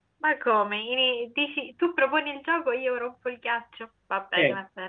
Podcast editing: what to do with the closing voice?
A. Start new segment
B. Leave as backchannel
A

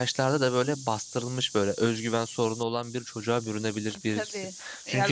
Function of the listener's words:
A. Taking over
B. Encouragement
B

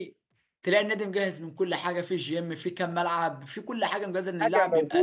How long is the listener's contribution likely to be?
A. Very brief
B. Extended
B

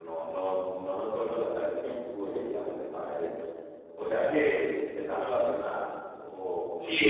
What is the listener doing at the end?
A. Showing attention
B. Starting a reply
B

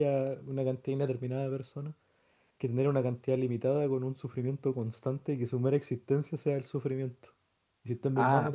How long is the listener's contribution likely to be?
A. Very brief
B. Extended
A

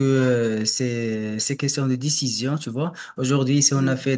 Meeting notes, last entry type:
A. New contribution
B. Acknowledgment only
B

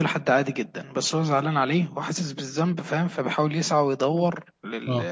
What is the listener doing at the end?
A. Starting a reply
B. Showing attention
B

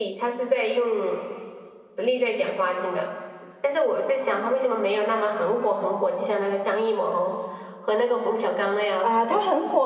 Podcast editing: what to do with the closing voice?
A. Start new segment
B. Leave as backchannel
A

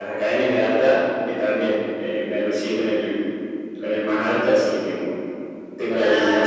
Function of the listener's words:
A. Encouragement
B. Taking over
B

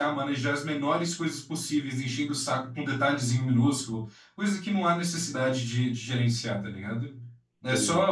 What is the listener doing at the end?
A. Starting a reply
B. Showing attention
B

